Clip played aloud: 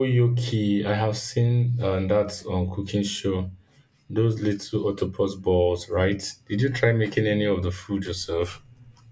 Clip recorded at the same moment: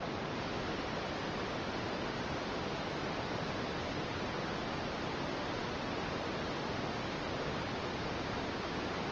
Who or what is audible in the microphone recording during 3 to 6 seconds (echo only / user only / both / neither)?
neither